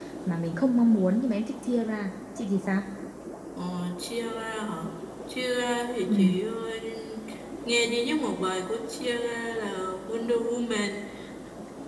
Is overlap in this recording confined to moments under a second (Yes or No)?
Yes